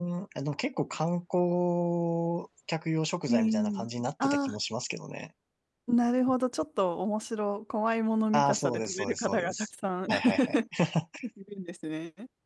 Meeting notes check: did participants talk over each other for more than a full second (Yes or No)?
Yes